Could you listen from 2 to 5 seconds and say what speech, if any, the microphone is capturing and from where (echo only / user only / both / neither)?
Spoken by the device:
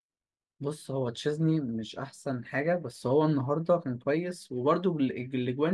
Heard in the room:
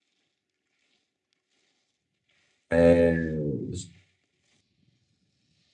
user only